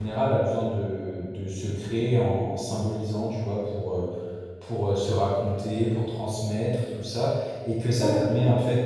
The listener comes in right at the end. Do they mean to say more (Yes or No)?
No